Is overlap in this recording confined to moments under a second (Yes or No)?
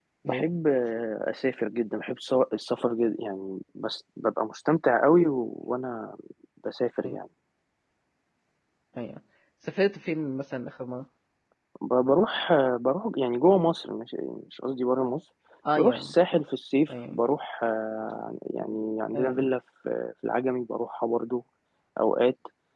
Yes